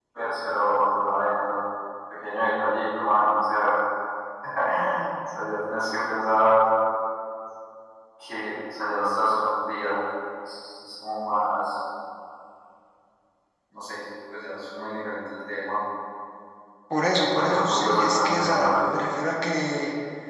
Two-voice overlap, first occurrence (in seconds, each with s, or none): 17.2 s